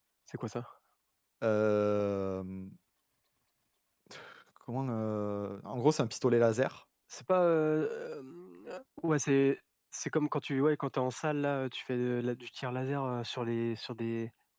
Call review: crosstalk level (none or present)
none